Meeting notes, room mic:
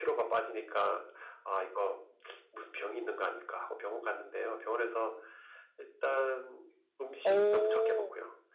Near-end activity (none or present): present